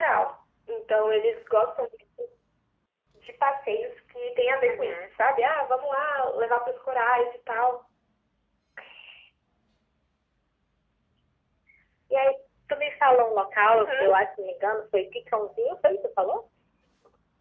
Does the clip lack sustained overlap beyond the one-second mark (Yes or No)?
Yes